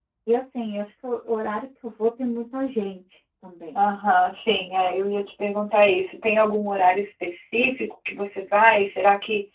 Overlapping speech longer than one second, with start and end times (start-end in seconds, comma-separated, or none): none